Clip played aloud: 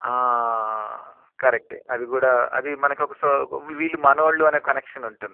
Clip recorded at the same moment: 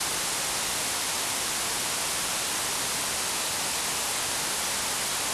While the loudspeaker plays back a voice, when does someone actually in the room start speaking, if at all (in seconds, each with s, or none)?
none